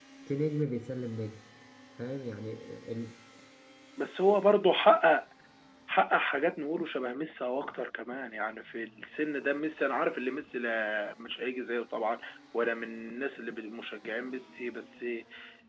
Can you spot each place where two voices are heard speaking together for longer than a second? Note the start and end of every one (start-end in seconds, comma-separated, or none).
none